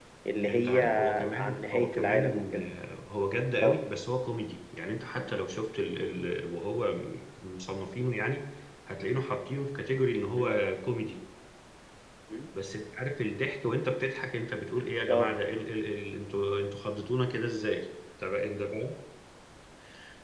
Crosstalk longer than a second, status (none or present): present